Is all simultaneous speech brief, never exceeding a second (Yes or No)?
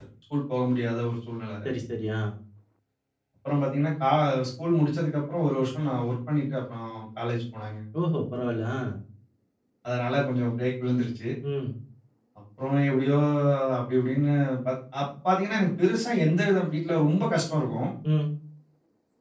Yes